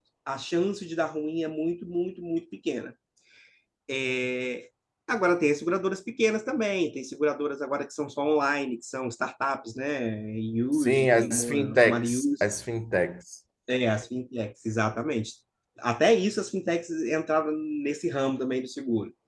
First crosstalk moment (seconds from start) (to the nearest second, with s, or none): 11 s